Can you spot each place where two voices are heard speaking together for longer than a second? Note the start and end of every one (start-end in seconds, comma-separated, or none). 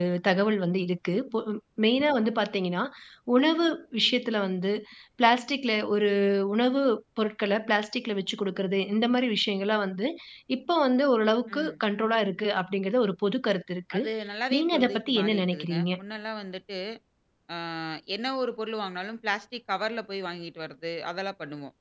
14.5-15.8